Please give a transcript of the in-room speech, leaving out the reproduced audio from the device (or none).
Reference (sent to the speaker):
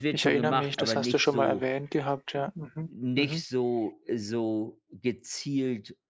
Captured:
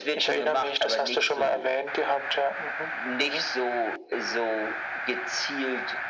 none